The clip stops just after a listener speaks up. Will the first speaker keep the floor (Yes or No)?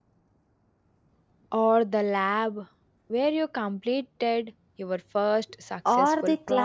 No